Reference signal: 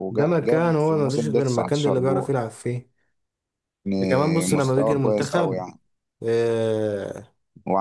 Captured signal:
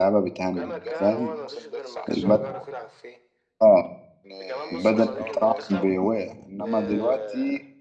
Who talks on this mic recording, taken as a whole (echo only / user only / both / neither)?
both